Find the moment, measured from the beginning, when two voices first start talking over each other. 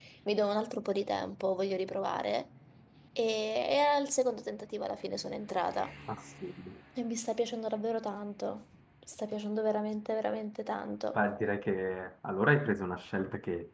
none

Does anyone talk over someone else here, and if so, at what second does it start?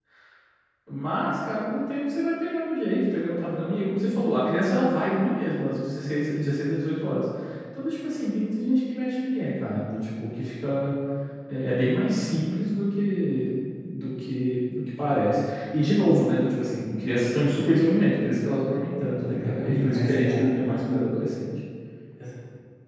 19.1 s

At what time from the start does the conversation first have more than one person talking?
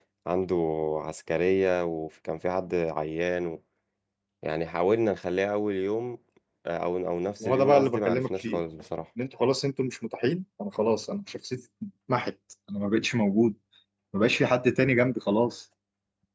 7.4 s

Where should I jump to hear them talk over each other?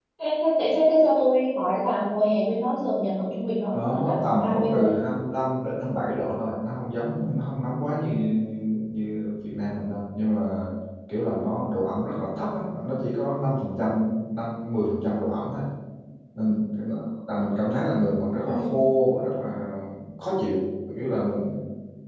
3.7 s

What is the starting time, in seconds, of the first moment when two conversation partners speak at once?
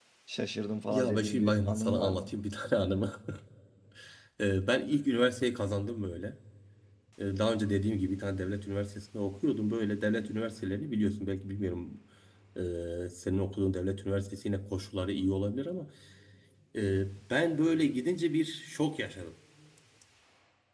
0.9 s

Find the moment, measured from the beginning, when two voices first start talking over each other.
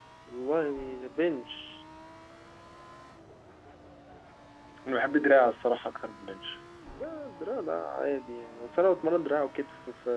none

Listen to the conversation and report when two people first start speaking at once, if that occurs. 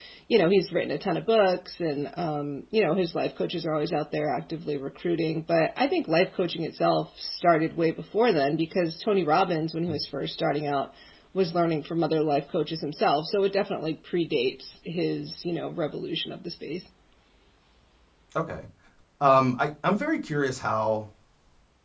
none

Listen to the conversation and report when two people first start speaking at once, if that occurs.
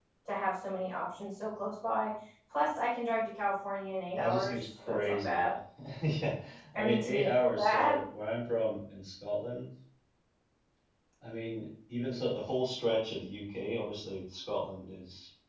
4.2 s

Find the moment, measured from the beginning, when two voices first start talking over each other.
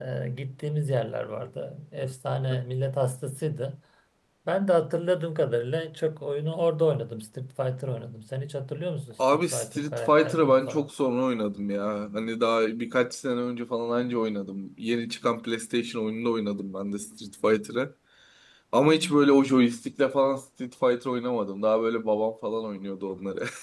9.2 s

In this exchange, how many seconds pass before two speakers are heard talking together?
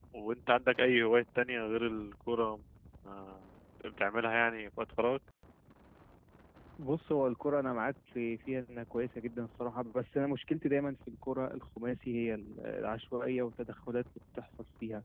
none

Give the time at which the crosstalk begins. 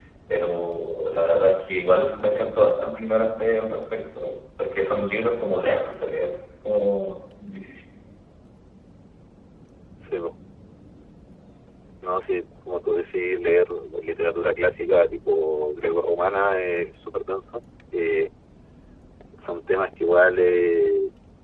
none

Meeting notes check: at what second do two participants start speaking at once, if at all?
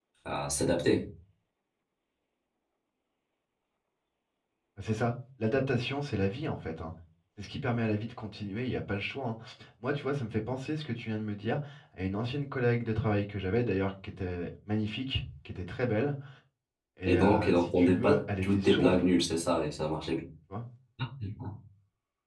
17.0 s

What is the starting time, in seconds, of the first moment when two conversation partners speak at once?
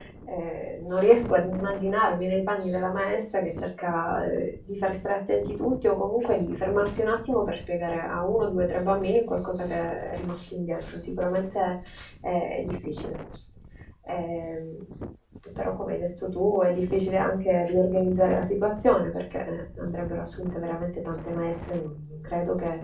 none

